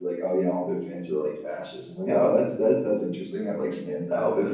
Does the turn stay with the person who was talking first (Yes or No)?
Yes